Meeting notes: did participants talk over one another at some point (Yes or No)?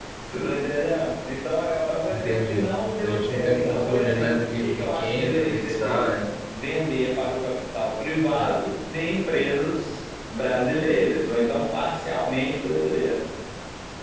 Yes